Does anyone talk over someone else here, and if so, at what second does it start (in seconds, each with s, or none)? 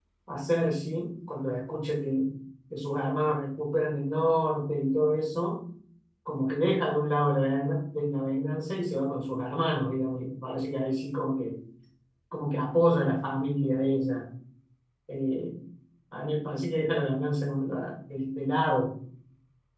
none